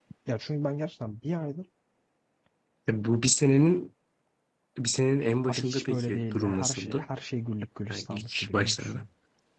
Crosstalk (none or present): present